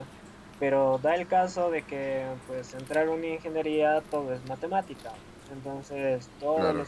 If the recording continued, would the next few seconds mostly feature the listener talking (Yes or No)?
No